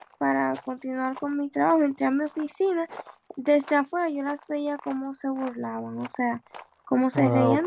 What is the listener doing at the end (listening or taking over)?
taking over